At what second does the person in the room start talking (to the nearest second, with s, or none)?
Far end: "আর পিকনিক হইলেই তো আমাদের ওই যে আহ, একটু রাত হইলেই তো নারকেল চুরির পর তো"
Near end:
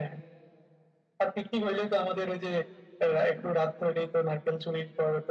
none